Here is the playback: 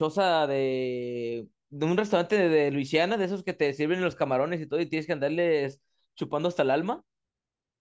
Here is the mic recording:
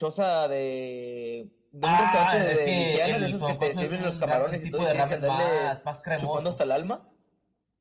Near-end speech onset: 2 s

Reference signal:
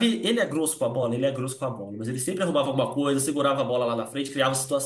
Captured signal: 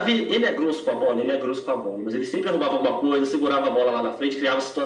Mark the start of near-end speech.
none

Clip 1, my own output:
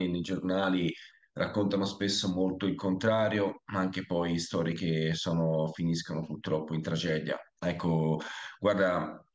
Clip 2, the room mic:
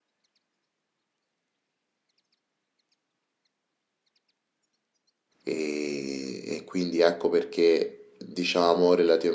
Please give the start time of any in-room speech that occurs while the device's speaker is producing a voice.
5 s

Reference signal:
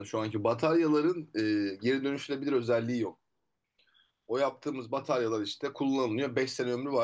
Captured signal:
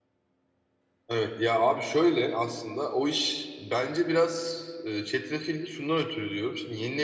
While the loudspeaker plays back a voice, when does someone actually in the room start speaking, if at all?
1 s

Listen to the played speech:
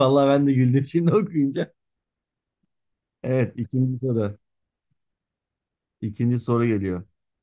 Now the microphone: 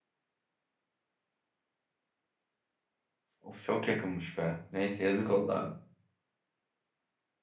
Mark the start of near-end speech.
3 s

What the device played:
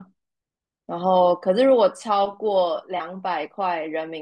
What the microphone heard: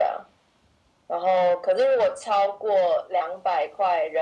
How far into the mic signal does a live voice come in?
none

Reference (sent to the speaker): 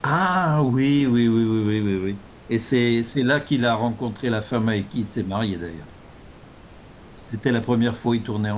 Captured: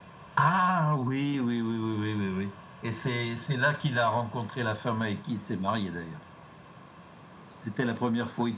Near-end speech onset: none

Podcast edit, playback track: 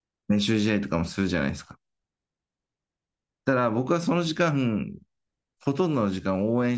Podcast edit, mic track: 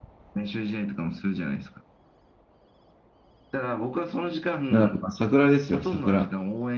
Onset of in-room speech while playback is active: 5 s

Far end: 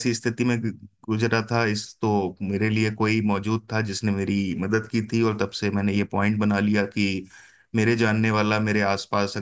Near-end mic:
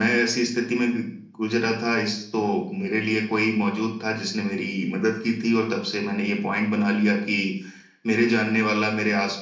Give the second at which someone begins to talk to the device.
none

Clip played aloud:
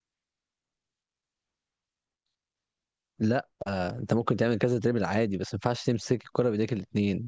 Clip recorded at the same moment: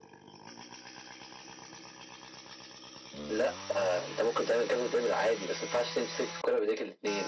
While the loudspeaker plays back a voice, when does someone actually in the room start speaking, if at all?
none

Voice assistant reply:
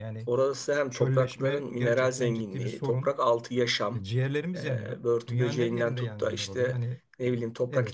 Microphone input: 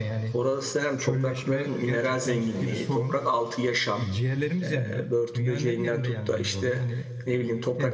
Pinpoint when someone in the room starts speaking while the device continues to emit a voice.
none

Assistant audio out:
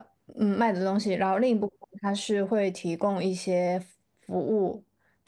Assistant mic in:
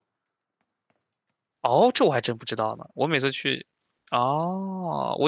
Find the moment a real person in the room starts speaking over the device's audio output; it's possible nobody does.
2 s

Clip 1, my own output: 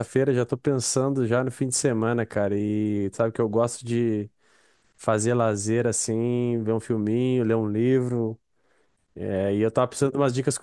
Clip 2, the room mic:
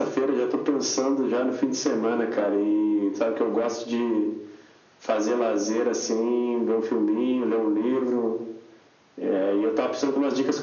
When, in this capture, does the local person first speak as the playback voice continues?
none

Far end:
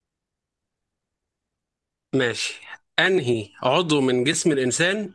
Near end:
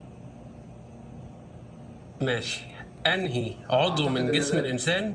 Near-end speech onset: 4 s

